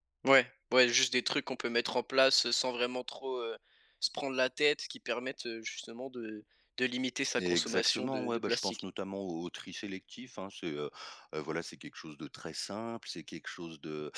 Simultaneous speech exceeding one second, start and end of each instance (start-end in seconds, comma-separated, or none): 7.4-8.8